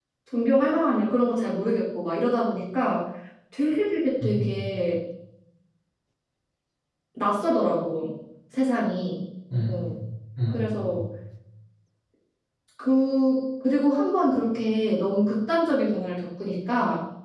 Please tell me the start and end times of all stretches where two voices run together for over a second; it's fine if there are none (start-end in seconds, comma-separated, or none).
none